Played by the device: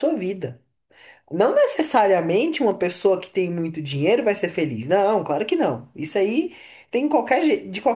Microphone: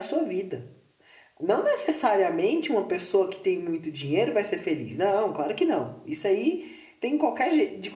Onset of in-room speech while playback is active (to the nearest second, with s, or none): none